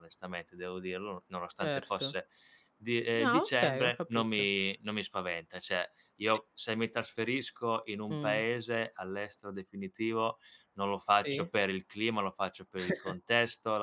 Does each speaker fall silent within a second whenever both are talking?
No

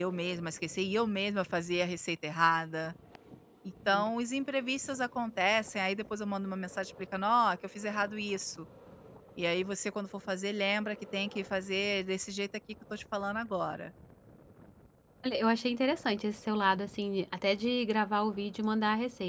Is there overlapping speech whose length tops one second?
No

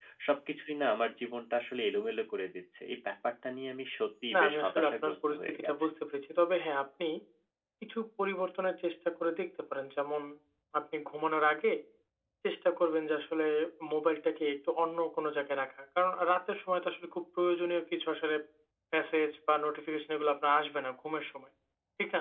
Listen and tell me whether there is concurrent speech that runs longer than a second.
Yes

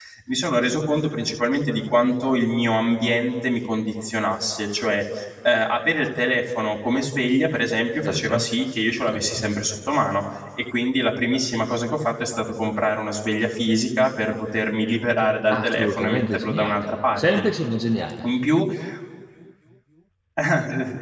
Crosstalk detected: Yes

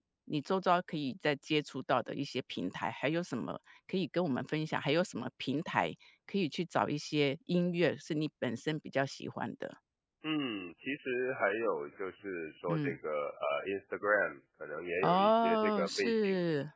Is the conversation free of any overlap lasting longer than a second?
No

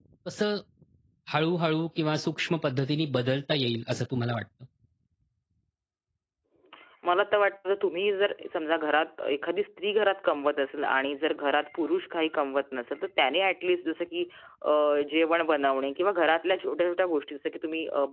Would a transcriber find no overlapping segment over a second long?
Yes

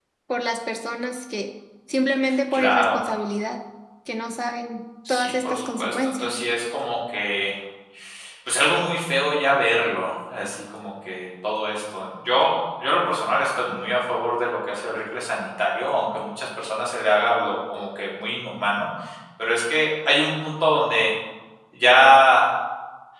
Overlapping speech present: Yes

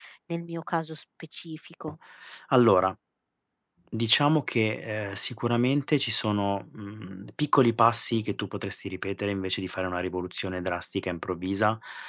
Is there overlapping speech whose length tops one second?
No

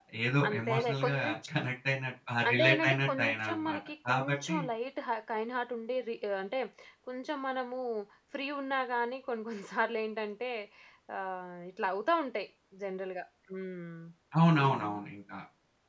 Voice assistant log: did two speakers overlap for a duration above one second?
Yes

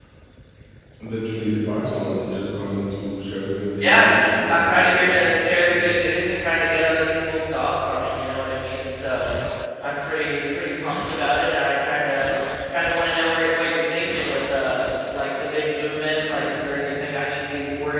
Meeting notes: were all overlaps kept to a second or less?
No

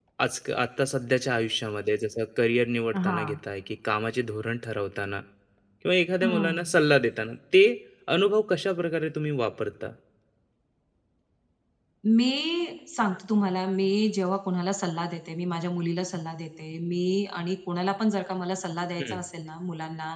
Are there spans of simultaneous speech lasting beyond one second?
No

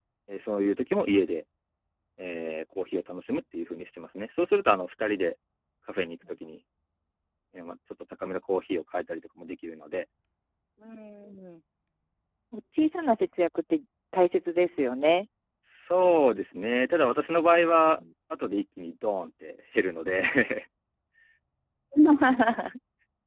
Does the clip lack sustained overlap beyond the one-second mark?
Yes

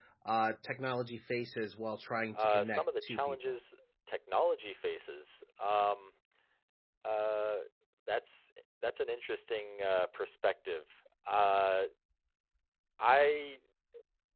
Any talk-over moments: Yes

